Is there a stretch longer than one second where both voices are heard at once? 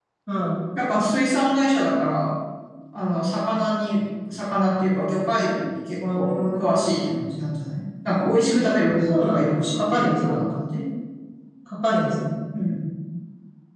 Yes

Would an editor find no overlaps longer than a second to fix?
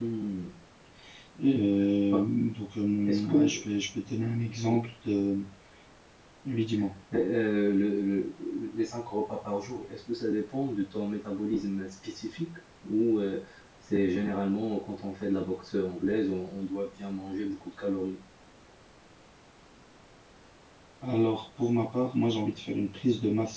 Yes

